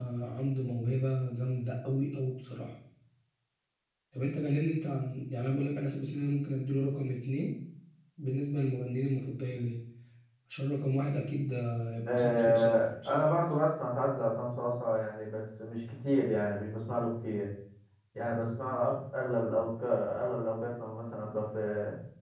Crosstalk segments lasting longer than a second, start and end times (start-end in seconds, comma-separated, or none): 12.1-13.3